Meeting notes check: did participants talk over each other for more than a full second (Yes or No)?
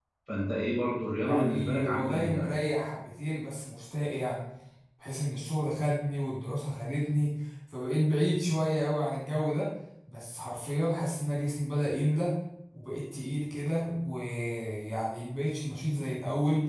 Yes